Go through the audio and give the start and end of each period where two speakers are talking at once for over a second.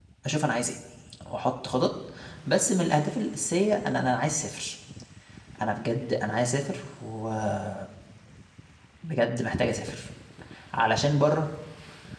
none

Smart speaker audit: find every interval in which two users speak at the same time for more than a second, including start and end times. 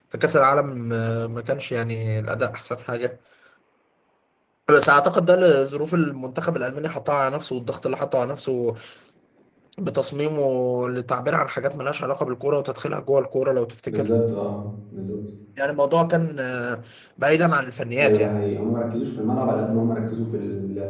none

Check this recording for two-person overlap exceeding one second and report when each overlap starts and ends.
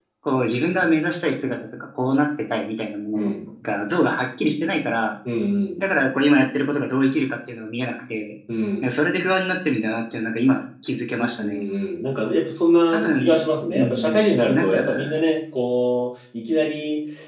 12.9-15.1

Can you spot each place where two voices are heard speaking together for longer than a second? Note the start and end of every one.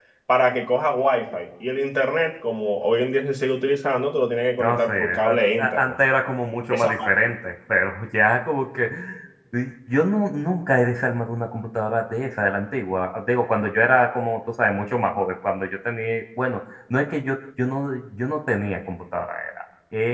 4.6-5.9

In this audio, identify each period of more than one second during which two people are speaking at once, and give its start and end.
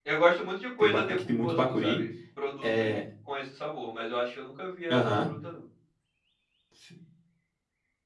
0.8-2.0

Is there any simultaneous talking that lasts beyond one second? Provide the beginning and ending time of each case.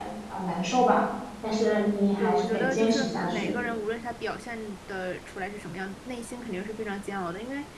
2.2-3.5

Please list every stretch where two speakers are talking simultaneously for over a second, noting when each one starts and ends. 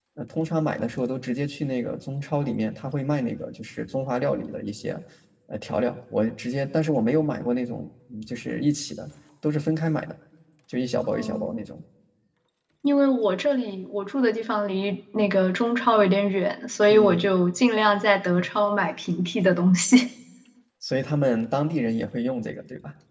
none

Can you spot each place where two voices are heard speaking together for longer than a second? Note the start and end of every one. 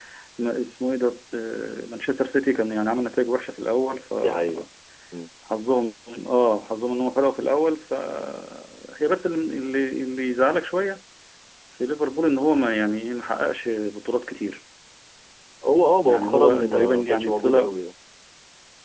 16.1-17.7

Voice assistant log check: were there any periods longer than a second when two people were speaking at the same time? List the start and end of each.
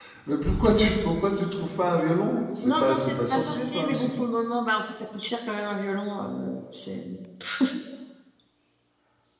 2.6-4.1

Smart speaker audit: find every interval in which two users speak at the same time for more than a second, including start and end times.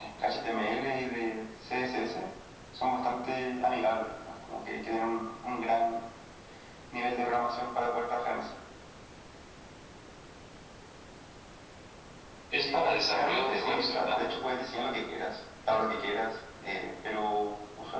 12.5-14.2

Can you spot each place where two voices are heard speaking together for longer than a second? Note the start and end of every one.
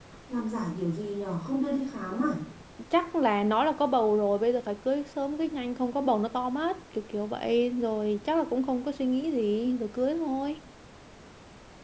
none

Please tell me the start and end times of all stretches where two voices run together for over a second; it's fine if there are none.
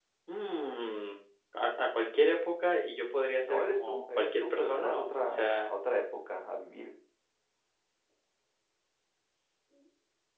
3.4-5.7

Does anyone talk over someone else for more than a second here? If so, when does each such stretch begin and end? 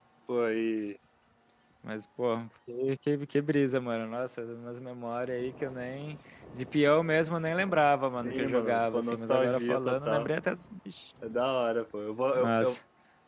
8.2-10.3

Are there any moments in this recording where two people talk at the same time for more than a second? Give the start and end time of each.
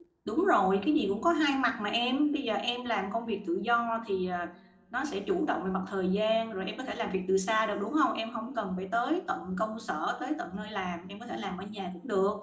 none

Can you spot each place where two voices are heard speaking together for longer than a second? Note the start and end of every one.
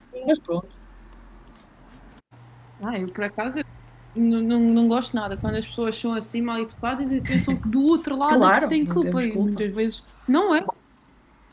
8.3-9.7

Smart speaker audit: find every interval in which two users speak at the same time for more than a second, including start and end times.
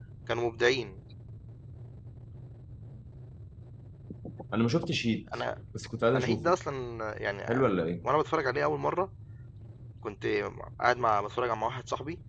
none

